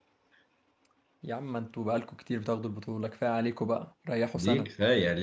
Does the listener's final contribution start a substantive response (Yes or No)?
Yes